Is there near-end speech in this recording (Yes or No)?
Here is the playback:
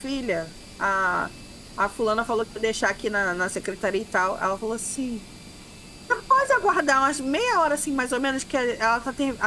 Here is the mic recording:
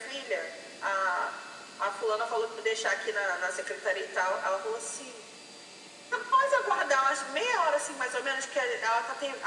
No